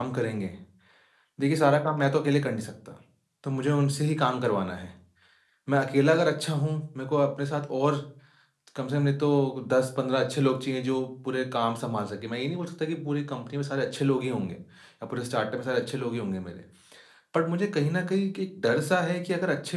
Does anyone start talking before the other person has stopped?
No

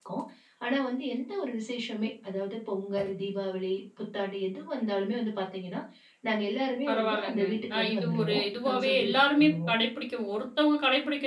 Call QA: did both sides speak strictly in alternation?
No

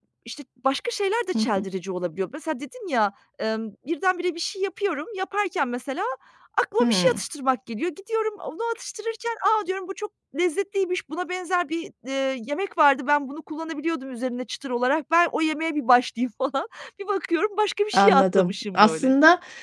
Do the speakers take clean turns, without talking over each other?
No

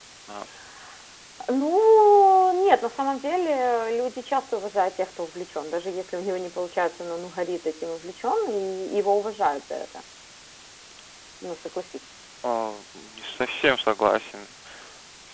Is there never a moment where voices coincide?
Yes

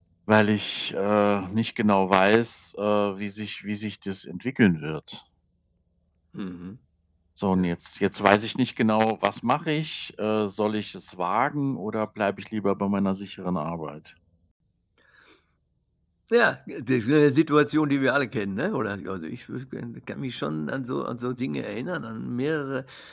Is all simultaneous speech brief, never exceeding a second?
Yes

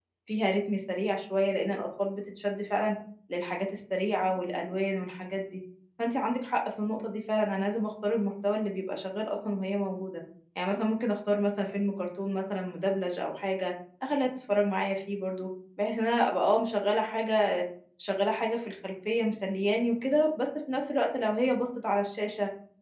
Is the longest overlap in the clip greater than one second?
No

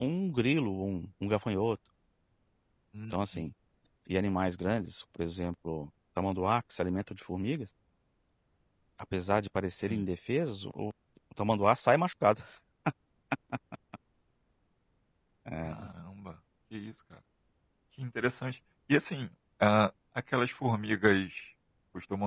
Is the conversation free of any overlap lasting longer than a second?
Yes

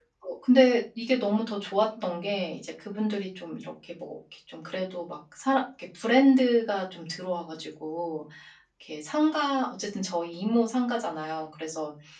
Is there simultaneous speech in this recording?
No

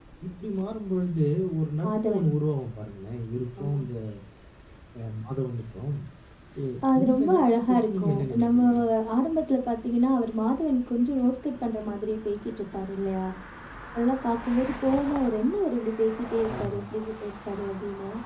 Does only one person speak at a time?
No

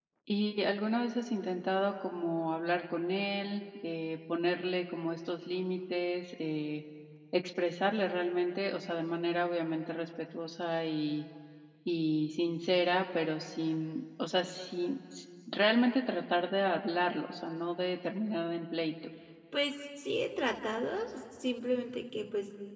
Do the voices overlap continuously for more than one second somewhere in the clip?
No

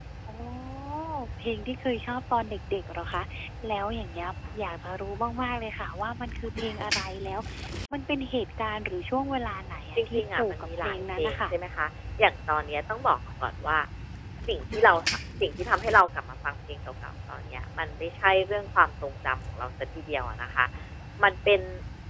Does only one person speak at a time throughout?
No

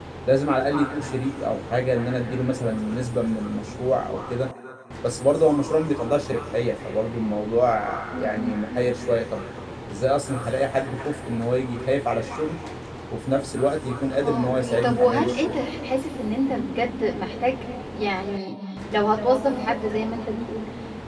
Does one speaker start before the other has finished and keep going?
Yes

